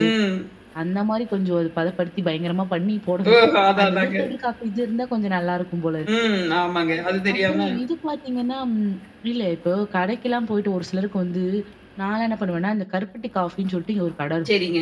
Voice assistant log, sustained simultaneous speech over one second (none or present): none